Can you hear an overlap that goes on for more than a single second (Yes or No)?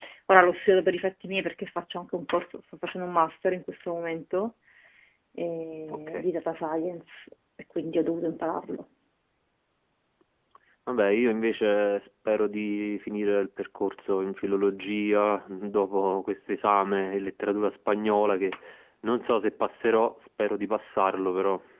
No